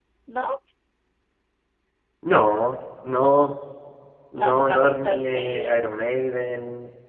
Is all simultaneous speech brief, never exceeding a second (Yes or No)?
No